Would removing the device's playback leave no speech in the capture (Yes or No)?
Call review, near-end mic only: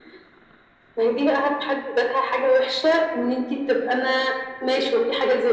Yes